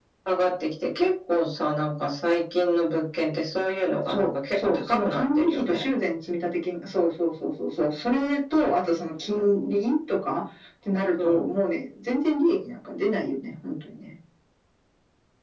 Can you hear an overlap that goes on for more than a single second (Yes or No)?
Yes